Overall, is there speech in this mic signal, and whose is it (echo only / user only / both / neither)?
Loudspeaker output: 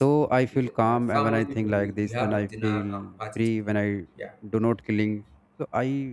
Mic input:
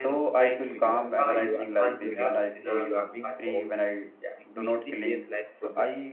both